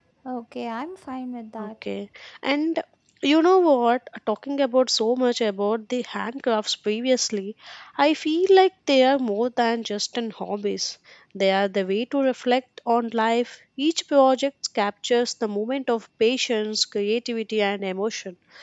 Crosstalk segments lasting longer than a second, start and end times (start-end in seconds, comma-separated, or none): none